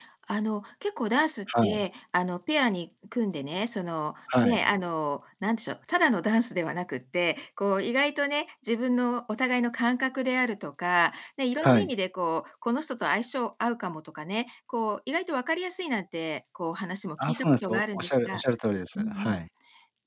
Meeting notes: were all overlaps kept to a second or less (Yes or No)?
No